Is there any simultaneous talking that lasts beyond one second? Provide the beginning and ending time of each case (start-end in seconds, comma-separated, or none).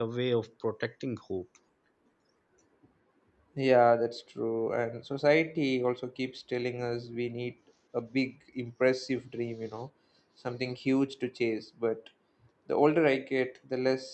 none